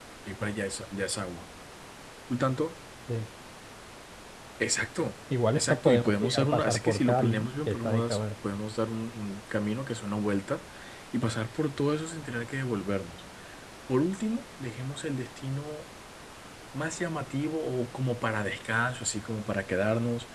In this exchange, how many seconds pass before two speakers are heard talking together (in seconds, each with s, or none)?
5.3 s